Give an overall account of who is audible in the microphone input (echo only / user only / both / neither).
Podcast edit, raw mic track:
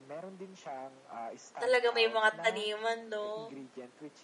both